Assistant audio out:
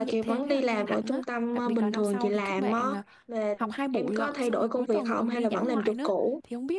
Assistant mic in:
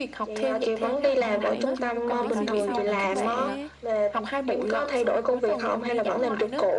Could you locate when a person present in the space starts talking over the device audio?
1.1 s

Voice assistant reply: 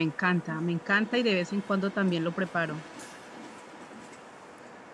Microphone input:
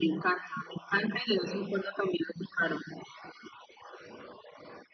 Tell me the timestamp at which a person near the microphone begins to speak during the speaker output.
none

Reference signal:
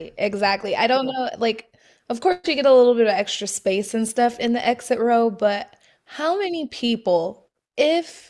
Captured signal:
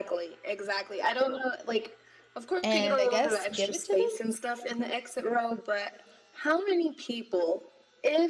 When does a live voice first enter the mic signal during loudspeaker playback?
2.6 s

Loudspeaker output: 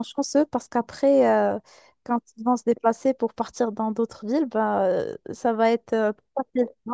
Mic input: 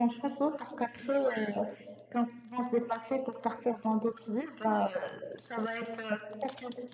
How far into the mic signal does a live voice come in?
none

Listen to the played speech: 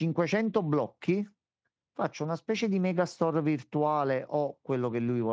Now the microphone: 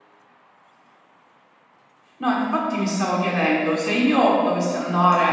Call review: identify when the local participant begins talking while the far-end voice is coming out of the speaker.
2.2 s

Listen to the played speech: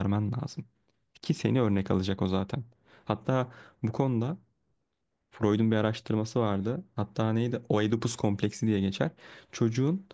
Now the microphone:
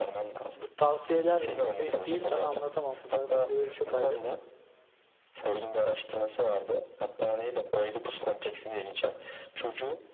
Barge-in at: 0.5 s

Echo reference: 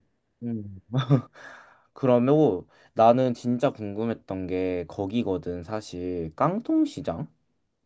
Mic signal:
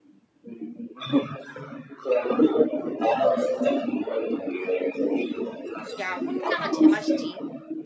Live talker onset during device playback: 6.0 s

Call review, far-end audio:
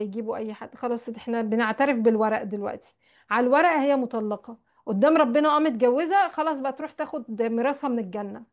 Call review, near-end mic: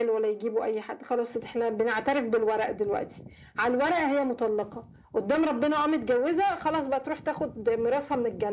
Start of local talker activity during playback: none

